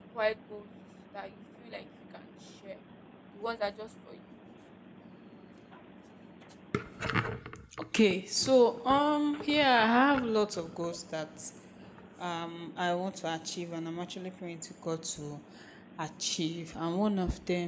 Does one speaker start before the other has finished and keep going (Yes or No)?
No